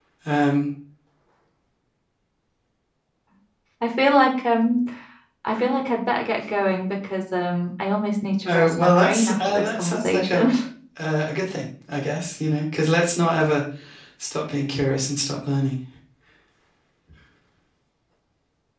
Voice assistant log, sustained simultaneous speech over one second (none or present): present